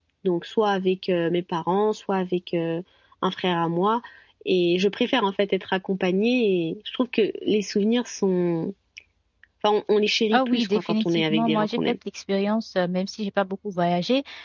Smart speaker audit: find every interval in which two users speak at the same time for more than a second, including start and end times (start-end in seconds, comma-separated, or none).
10.3-11.8